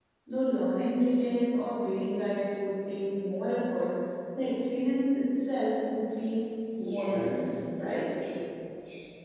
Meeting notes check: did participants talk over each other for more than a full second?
Yes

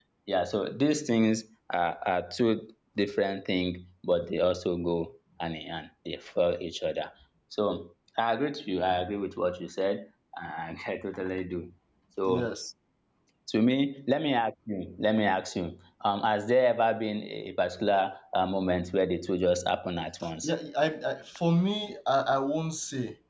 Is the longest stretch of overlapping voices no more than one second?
Yes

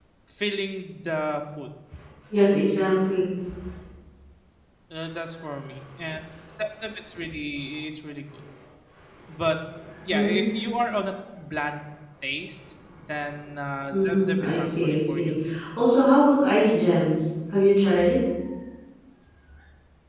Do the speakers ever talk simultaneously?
Yes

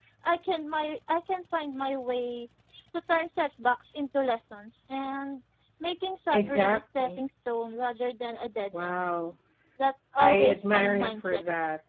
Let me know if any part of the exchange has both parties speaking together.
Yes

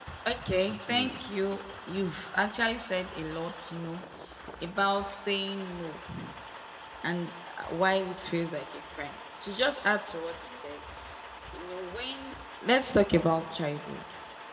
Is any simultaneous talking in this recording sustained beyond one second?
Yes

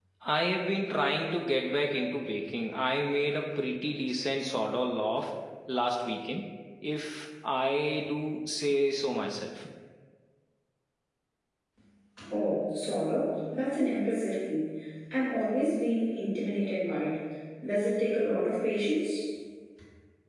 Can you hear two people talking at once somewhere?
No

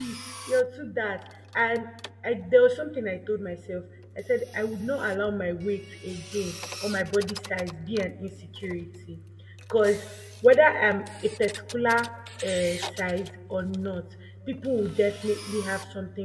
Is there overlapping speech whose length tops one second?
No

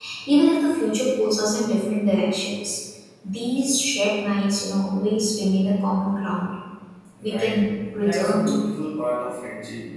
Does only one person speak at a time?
No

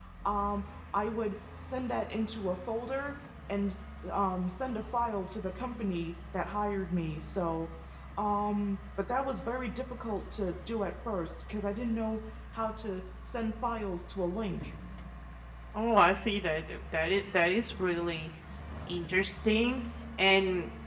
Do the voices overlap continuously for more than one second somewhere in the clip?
No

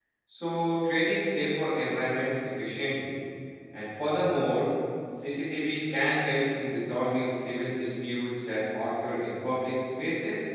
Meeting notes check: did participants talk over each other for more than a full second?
No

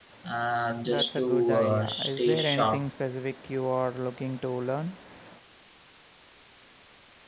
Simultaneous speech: Yes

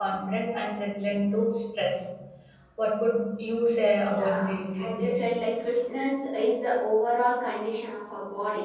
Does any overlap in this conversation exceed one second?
Yes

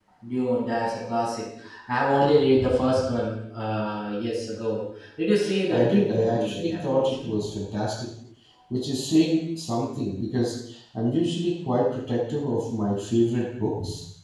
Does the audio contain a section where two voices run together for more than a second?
Yes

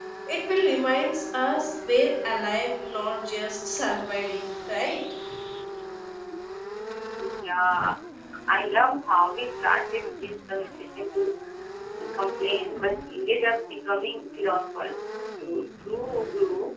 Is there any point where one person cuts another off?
No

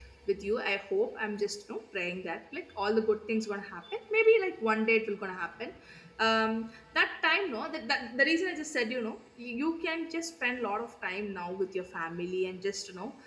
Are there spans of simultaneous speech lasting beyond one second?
No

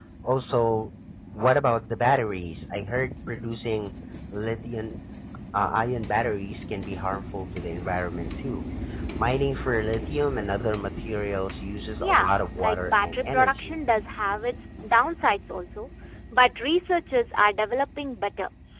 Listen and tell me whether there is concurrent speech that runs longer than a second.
Yes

